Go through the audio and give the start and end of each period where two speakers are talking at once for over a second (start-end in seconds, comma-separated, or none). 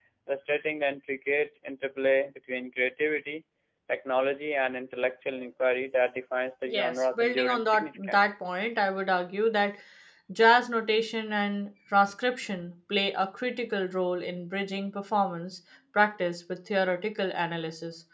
6.7-8.3